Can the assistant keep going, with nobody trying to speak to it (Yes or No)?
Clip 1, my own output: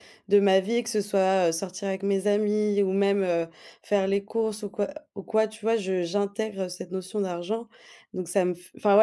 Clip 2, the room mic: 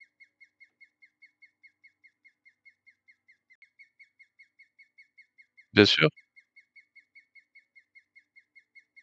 No